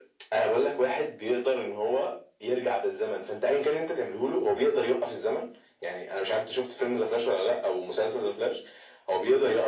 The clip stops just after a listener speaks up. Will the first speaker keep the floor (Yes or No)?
Yes